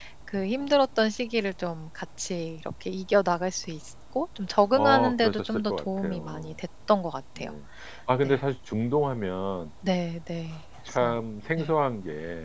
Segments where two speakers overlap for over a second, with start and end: 4.7-6.5

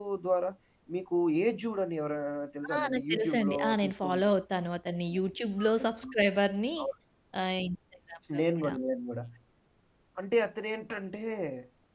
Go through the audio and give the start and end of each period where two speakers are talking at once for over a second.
2.7-4.3

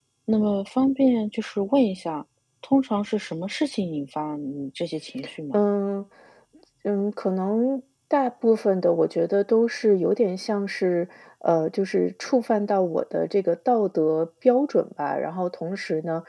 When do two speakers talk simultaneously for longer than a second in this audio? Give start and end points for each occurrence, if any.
none

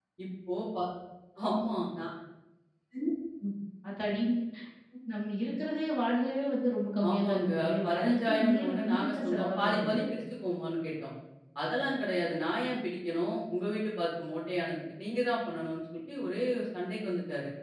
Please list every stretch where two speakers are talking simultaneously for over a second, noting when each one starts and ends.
7.1-10.0

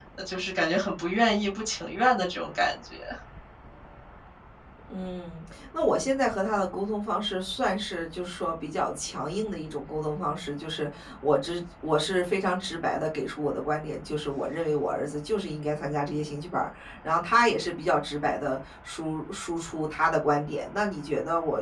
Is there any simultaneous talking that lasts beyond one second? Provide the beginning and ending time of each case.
none

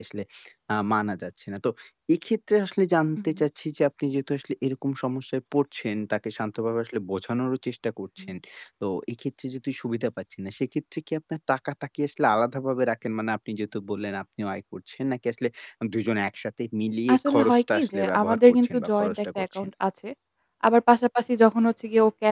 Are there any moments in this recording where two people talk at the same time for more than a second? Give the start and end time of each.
17.1-19.7

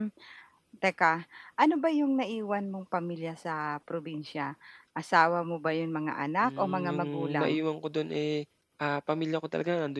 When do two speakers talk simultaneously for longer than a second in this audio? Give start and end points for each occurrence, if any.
6.4-7.6

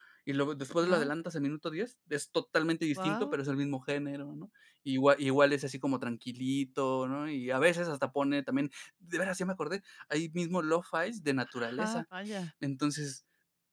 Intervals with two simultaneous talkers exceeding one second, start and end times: none

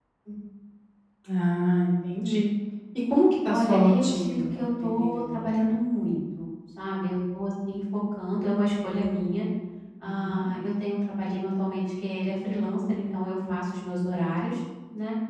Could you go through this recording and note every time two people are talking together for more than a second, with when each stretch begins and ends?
3.5-5.5

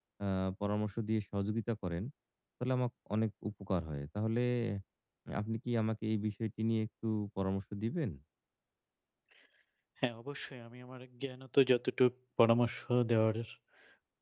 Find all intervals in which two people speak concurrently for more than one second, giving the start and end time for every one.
none

